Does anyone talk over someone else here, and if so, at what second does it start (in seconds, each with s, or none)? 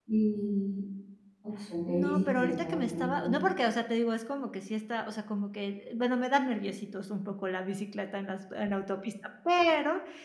1.9 s